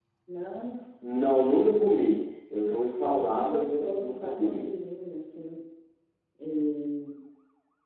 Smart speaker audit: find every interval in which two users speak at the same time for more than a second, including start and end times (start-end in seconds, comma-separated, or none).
3.2-4.7